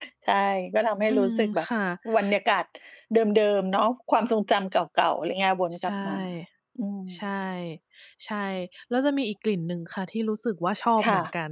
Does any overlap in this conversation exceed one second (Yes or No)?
No